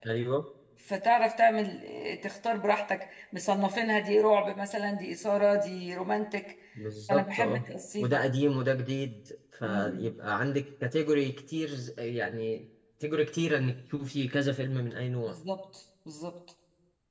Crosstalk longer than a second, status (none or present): none